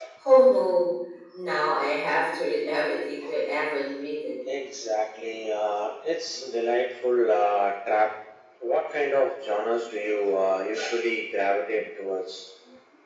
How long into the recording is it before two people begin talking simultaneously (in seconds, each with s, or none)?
none